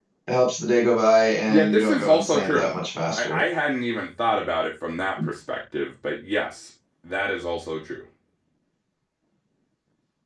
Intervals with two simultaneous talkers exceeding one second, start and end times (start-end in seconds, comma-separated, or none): 1.5-2.7